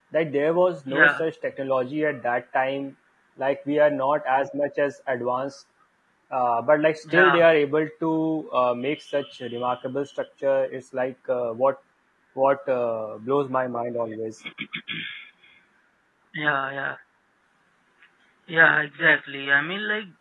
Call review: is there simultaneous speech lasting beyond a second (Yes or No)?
No